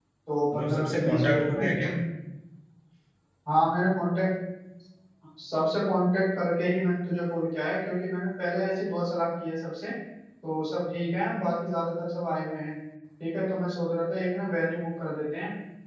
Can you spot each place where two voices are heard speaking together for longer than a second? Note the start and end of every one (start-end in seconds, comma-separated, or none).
0.5-1.9